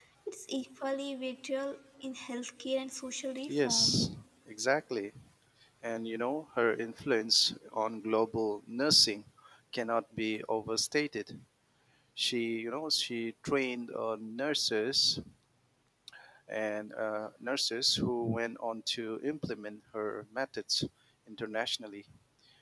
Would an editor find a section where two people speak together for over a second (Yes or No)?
No